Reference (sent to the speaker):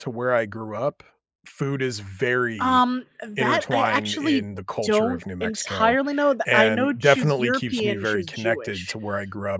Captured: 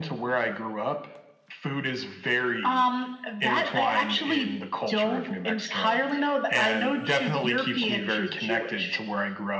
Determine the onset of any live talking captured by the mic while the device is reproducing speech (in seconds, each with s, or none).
none